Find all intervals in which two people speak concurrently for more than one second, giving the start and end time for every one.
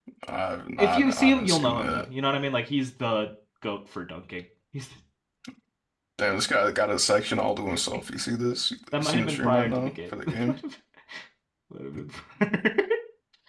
0.8-2.0, 9.0-10.6

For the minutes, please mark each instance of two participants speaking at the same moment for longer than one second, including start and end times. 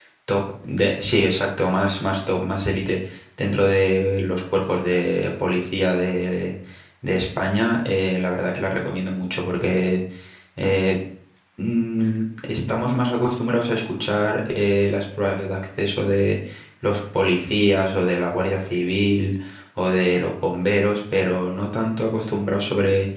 none

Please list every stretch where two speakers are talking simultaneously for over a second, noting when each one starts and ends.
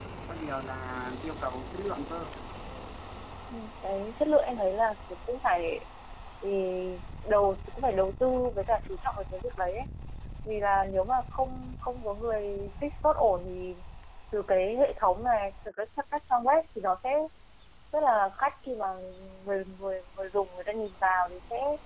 none

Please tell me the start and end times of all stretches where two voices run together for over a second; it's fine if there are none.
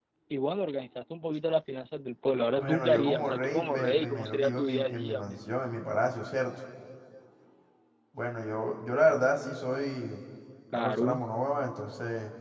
2.6-5.4

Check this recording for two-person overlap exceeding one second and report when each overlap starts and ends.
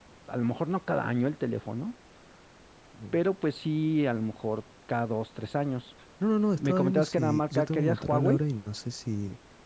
6.6-8.4

